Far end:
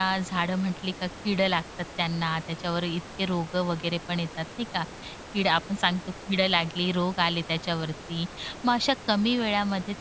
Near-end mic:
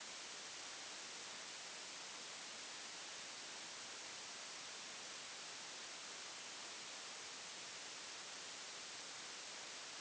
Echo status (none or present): none